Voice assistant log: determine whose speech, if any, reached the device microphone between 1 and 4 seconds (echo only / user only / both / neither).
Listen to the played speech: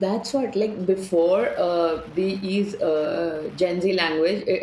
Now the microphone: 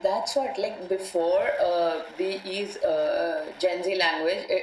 echo only